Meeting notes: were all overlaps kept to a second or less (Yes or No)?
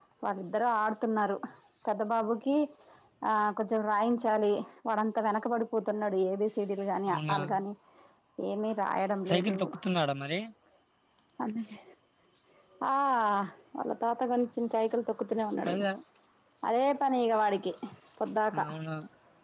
Yes